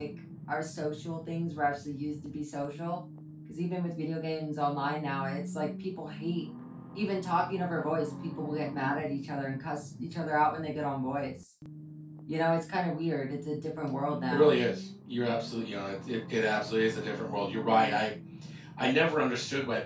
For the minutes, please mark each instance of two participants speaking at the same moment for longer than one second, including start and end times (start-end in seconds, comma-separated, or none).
none